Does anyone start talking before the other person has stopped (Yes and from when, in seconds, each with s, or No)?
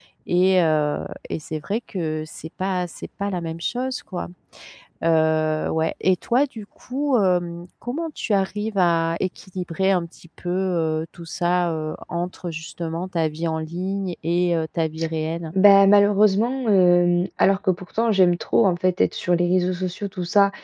No